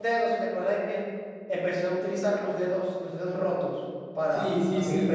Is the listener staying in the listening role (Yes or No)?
No